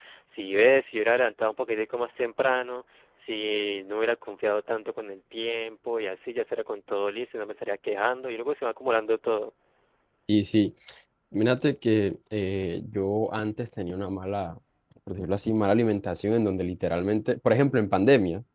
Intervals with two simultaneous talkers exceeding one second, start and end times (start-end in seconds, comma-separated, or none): none